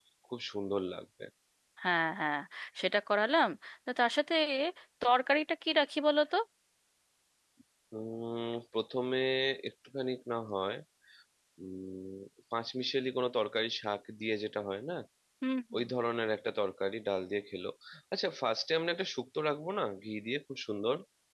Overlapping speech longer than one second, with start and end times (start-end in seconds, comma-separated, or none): none